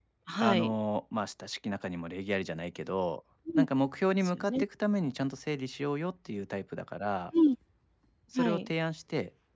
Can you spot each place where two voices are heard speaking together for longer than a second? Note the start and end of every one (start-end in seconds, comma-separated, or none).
none